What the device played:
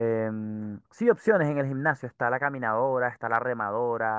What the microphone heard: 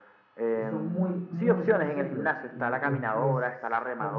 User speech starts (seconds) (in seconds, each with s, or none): 0.5 s